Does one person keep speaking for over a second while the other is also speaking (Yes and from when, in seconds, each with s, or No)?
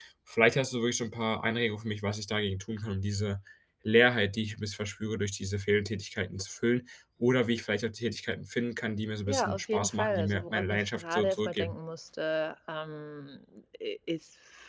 Yes, from 9.3 s